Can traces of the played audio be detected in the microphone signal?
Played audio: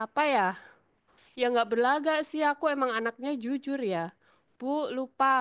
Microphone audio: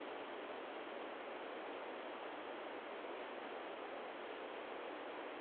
No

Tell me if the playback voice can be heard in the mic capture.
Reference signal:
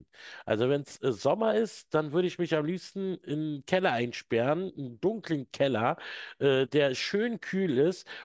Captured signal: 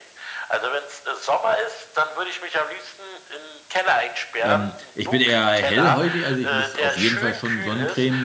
Yes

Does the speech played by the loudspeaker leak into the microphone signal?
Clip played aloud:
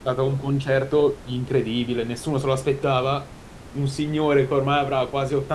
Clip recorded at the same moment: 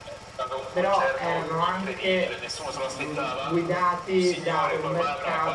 Yes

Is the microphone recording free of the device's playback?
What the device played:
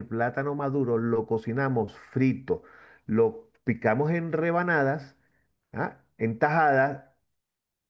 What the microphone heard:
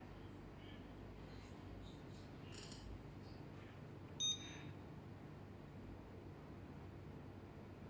Yes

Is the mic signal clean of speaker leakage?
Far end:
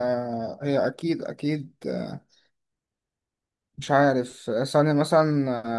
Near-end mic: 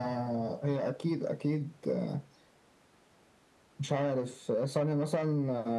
No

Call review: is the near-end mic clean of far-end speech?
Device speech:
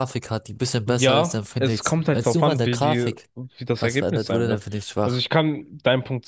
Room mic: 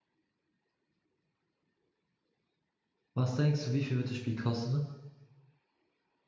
Yes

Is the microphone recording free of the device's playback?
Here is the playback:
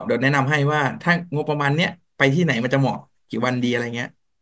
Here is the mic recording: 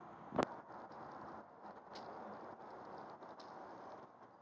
Yes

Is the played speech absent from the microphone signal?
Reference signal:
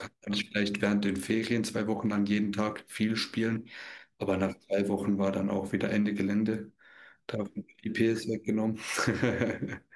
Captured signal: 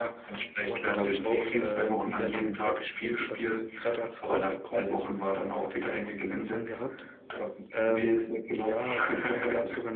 No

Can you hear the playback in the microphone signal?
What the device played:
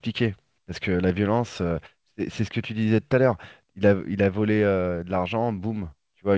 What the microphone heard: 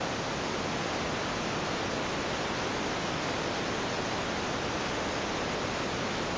No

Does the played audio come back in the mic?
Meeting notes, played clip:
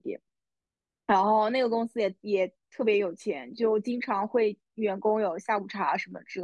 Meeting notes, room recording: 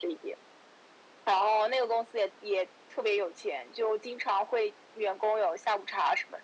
Yes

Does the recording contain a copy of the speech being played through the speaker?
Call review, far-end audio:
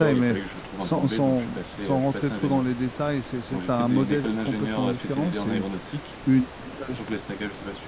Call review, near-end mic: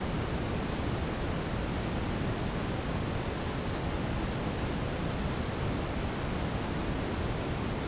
No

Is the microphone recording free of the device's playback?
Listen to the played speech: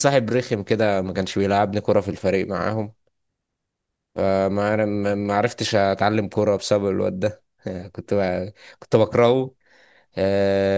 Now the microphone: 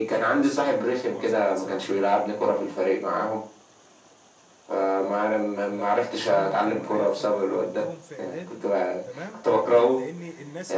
No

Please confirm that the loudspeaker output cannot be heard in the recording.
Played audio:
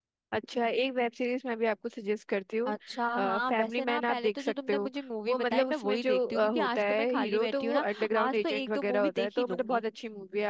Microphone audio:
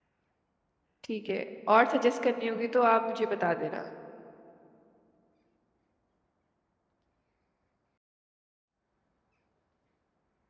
Yes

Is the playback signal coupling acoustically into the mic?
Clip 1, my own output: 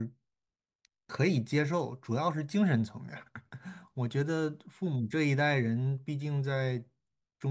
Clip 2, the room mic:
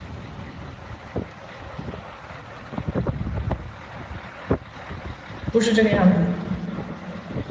No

